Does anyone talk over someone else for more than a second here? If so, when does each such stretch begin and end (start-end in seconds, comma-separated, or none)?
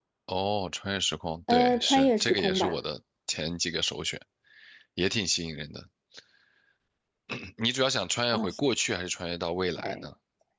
1.5-2.8